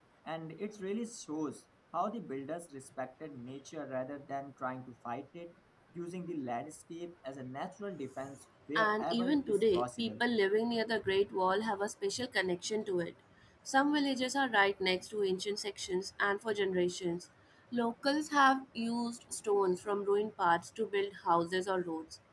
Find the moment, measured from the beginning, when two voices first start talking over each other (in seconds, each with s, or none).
8.8 s